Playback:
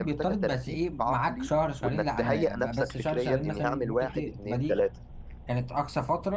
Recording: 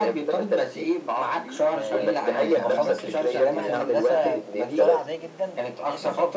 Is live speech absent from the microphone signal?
No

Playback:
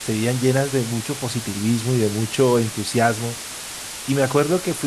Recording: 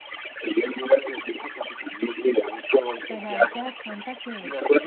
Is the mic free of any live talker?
No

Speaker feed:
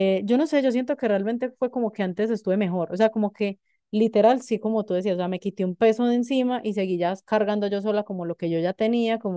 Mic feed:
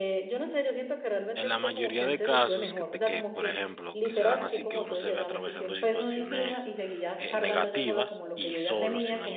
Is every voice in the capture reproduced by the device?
No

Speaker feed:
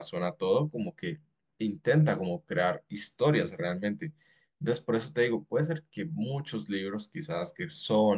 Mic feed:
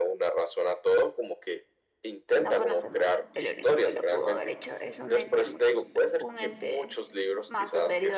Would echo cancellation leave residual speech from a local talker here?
Yes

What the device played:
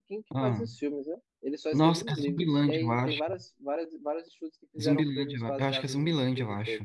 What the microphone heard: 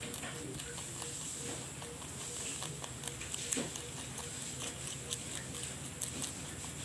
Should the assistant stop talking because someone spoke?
No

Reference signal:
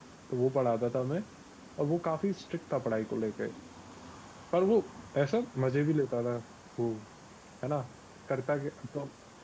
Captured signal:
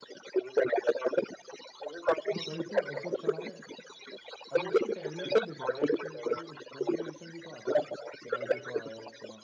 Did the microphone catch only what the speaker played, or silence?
No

